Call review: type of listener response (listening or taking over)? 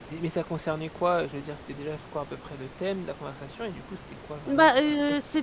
taking over